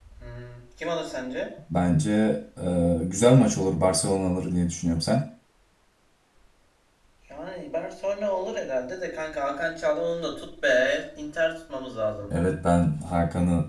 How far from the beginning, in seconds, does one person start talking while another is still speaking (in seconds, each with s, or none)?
none